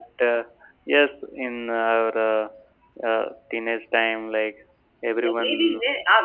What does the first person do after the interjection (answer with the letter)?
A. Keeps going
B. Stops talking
B